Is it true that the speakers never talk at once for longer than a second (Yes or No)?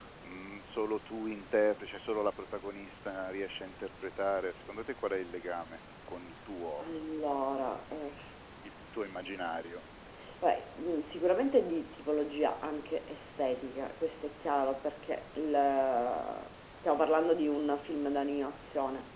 Yes